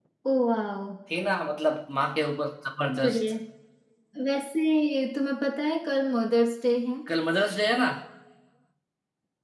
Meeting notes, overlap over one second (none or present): none